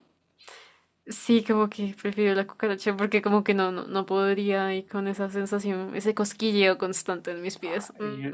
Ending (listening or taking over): taking over